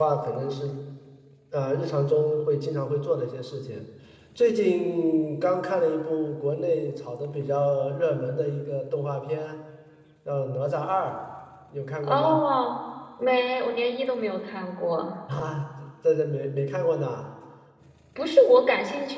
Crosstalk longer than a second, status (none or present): none